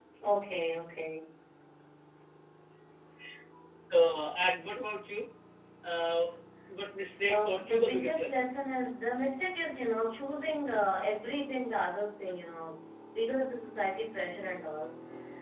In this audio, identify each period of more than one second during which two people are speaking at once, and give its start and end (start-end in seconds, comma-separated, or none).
7.3-8.5